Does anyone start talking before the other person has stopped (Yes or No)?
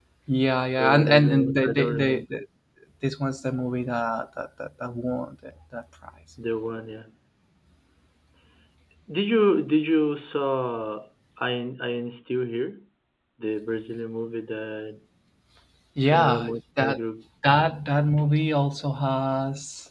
Yes